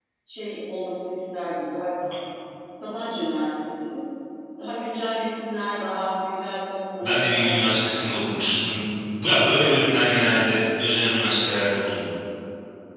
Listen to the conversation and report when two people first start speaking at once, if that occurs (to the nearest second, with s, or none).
7 s